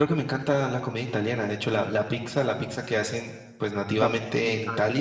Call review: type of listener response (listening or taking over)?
taking over